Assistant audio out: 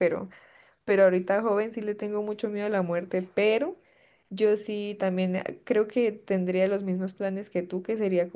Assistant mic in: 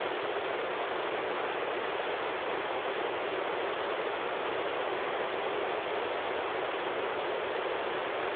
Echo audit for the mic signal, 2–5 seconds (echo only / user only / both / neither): neither